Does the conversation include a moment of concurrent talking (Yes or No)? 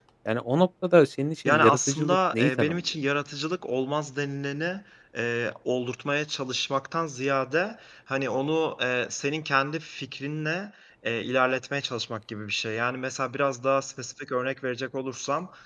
Yes